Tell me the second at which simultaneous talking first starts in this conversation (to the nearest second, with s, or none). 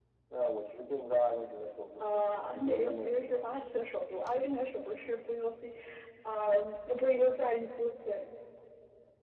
2 s